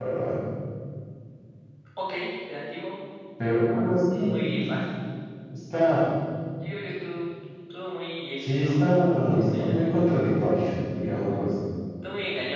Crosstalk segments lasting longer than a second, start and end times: none

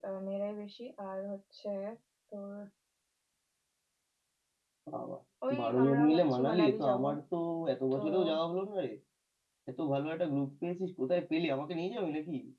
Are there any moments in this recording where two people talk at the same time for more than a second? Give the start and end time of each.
5.6-7.0

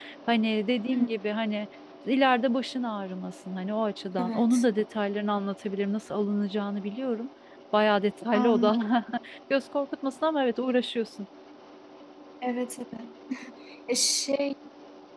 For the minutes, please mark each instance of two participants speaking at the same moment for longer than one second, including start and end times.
none

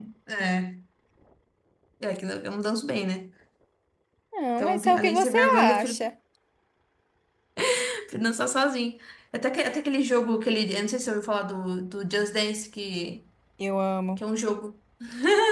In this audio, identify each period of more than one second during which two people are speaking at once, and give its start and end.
4.6-6.1

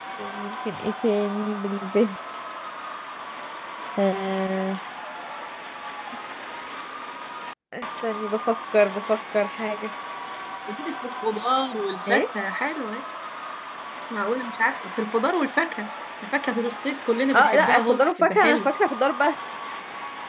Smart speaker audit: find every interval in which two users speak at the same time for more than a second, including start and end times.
17.3-18.7

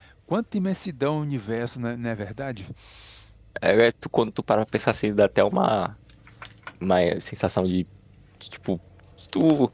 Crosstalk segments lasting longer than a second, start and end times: none

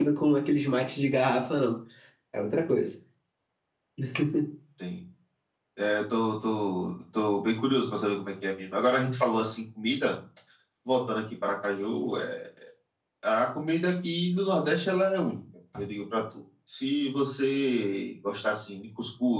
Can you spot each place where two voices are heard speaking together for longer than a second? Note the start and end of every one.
none

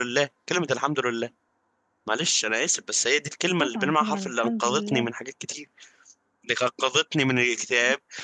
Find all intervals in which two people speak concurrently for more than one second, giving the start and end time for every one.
3.6-5.1

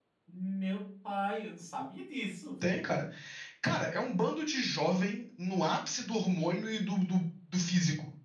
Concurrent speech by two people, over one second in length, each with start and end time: none

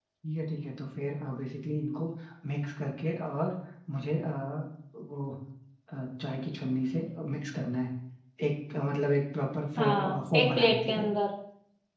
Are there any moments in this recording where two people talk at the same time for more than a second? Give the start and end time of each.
9.8-11.0

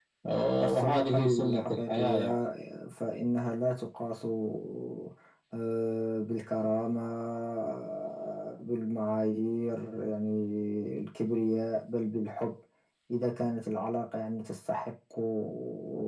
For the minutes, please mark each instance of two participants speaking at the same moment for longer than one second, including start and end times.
0.6-2.4

